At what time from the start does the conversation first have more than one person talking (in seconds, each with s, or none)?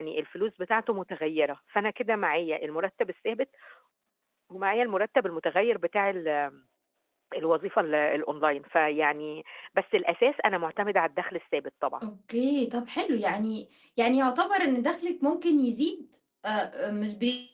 none